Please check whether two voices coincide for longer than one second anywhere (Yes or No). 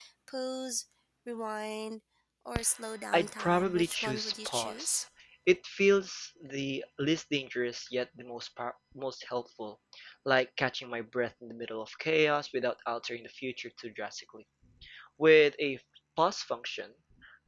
Yes